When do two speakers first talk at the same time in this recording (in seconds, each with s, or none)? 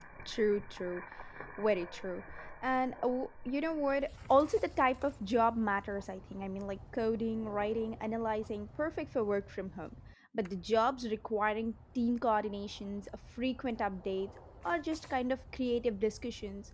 none